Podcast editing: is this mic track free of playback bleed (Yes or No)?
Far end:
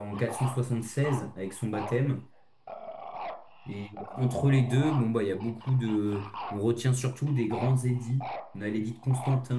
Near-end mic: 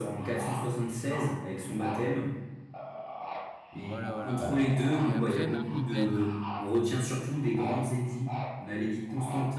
No